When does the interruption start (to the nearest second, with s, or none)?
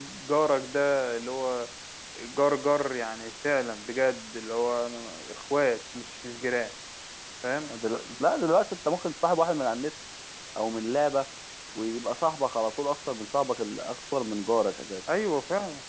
none